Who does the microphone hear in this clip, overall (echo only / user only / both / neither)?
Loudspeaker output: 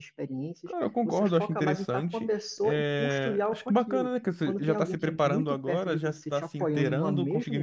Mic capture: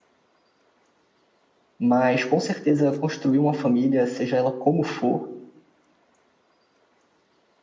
user only